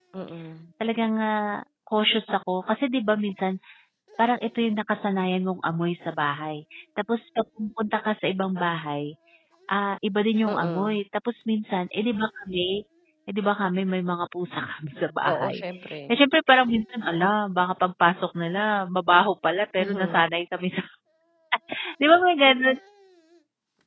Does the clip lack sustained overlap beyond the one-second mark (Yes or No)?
Yes